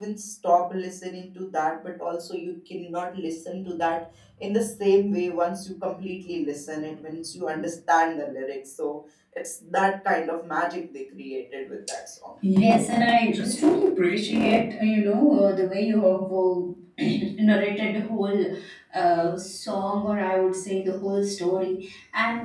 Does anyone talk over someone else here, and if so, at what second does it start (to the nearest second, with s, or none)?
none